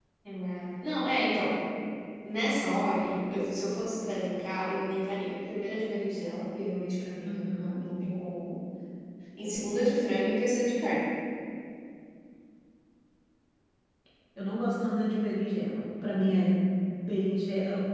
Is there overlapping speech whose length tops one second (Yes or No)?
No